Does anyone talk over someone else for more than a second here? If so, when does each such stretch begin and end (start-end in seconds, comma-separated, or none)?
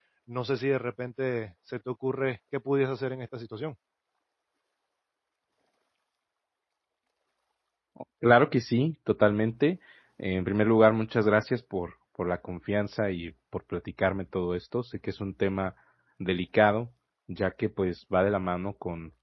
none